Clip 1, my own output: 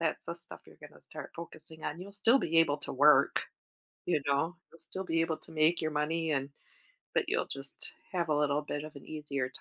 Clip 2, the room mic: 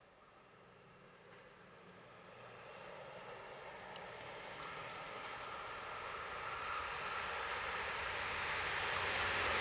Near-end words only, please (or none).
none